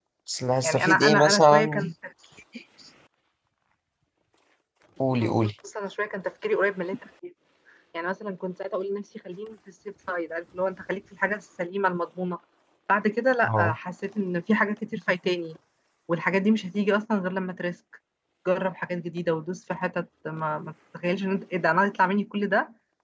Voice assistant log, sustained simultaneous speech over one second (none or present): present